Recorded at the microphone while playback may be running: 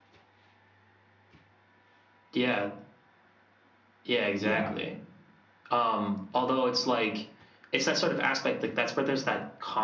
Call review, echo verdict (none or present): present